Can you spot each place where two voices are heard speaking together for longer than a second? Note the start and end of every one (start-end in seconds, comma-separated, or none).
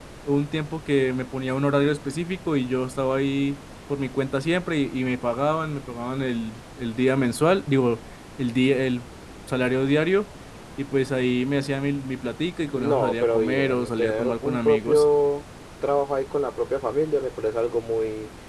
12.8-15.0